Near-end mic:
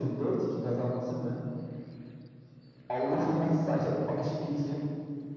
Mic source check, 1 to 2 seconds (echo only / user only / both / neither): echo only